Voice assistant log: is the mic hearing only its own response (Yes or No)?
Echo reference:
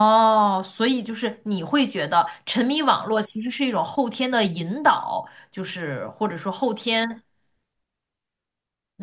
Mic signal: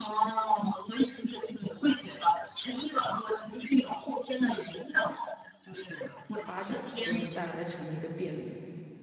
No